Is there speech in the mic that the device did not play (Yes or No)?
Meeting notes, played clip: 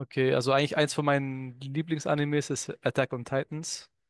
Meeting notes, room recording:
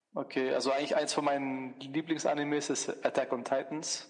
No